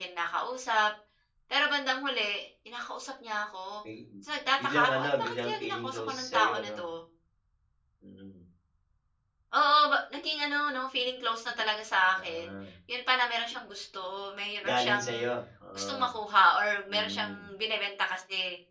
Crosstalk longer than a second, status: present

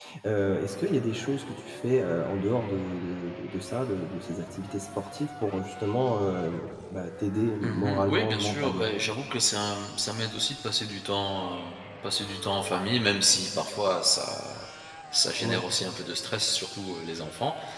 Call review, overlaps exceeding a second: present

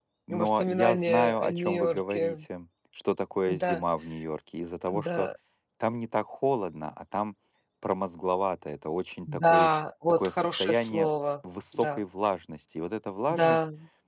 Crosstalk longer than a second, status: present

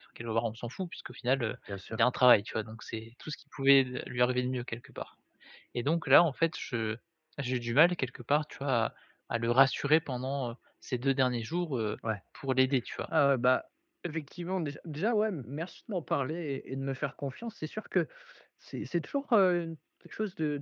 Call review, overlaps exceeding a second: none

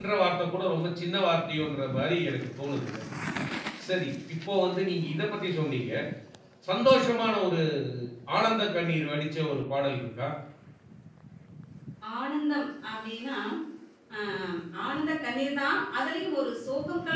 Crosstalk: none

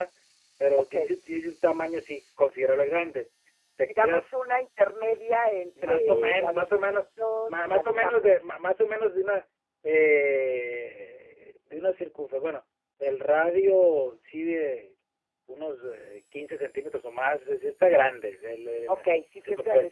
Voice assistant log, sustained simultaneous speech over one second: present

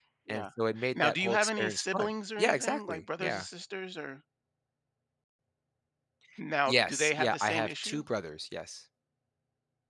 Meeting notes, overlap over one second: present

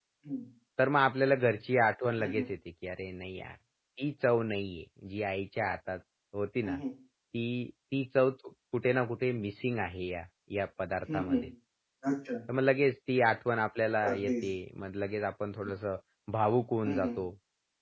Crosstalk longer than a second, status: none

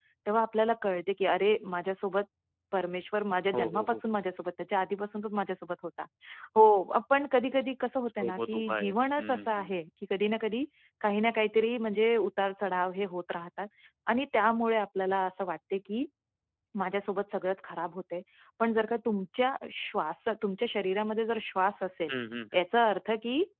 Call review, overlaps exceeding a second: present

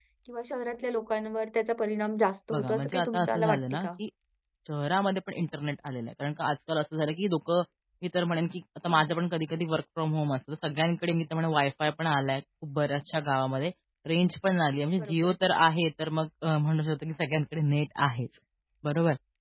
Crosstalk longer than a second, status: present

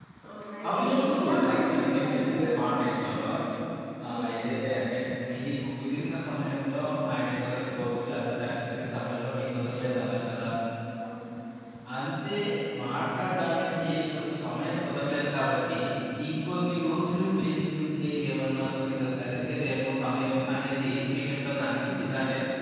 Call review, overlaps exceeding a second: present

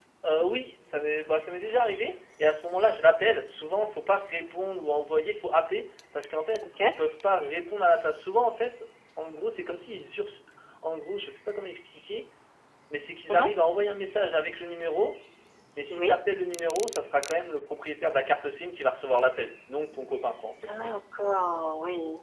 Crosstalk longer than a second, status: none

